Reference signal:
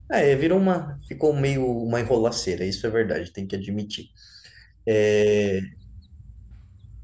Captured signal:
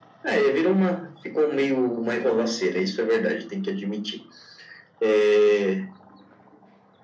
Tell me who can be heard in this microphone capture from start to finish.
echo only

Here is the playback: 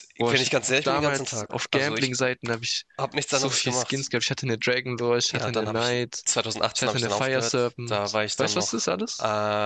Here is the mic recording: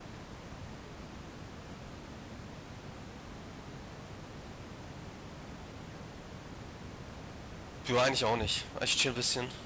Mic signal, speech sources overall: user only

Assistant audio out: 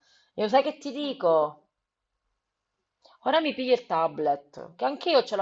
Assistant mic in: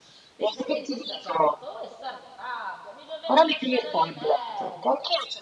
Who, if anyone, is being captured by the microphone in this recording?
both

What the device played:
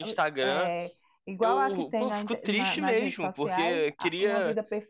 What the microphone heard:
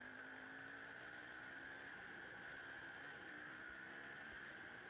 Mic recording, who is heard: neither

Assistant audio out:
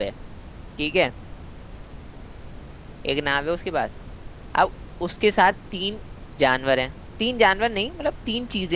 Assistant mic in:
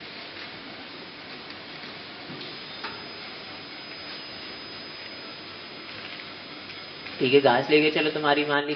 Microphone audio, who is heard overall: user only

